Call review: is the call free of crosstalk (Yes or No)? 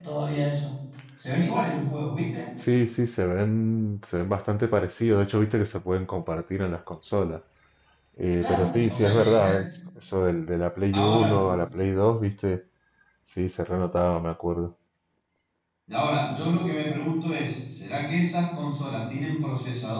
No